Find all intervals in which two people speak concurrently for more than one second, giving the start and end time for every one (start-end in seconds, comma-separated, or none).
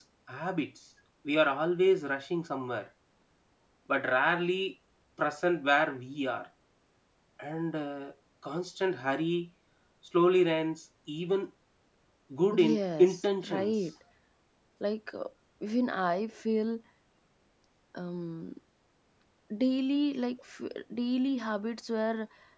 12.5-13.7